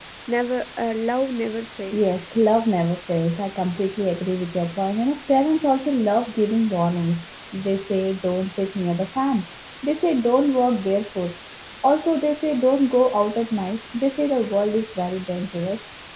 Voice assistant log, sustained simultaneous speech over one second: none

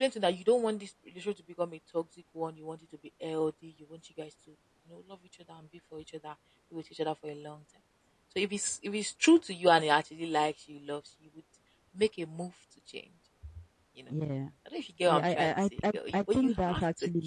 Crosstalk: present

